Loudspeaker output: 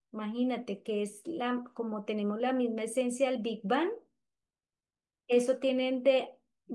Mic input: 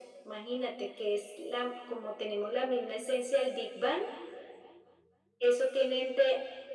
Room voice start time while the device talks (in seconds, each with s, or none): none